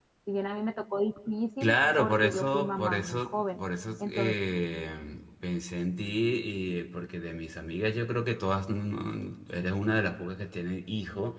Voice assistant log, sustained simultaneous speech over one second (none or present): present